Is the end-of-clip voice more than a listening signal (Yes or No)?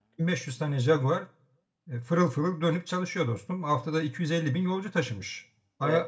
No